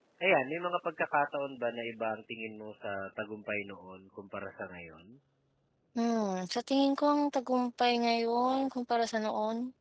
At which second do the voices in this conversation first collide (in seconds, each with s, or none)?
none